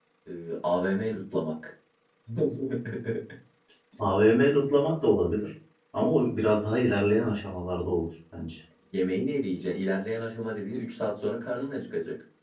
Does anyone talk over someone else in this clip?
No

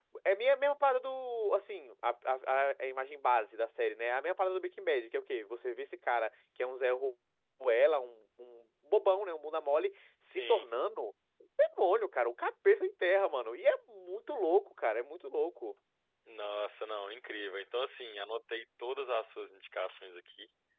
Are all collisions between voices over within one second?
Yes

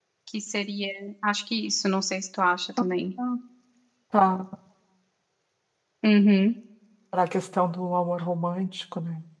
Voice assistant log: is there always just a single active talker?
Yes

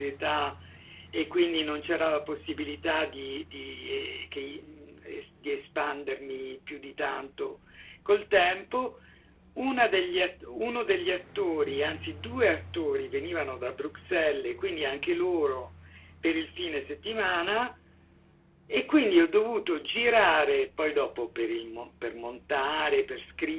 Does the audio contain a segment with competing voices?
No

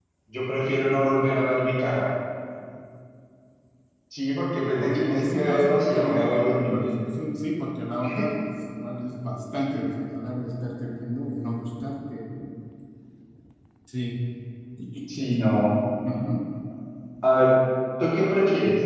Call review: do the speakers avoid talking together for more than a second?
No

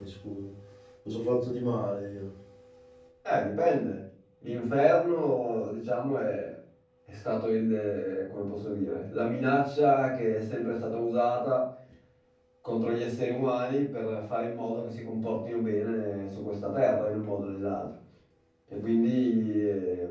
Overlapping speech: No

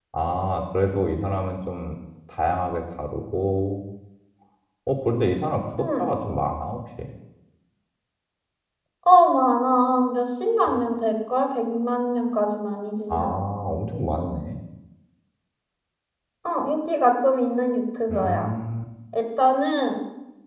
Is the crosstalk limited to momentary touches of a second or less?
Yes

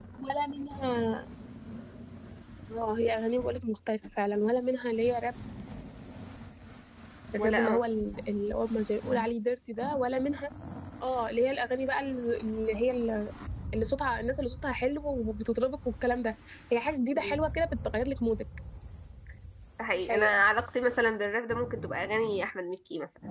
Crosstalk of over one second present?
No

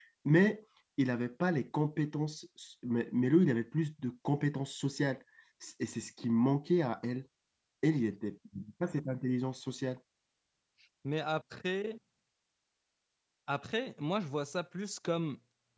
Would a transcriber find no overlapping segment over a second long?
Yes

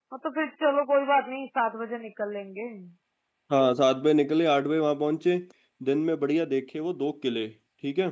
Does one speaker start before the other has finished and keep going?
No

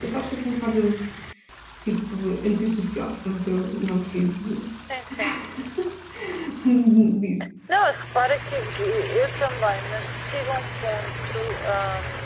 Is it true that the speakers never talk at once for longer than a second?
Yes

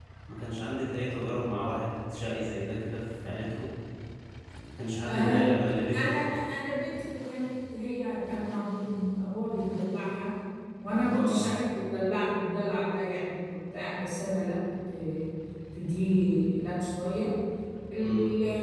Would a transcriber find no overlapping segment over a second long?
Yes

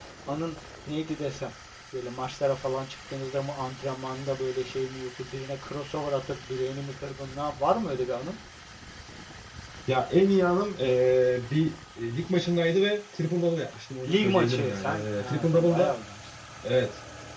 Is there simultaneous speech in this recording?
Yes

